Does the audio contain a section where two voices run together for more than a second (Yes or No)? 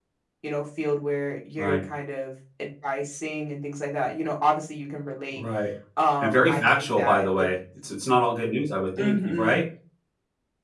Yes